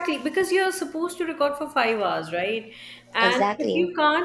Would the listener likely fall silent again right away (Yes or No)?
Yes